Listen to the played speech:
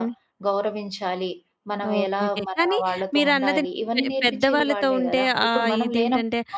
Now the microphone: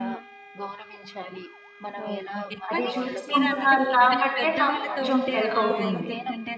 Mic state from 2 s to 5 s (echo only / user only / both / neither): both